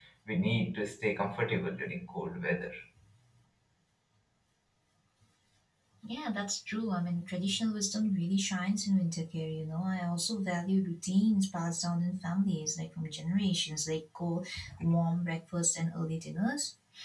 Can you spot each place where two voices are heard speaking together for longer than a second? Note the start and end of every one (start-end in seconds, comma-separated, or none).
none